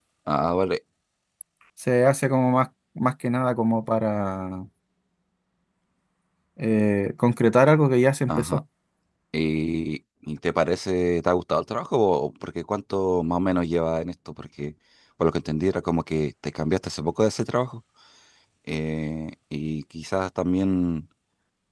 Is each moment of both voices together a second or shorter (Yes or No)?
Yes